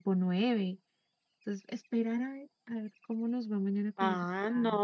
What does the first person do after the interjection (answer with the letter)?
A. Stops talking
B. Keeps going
A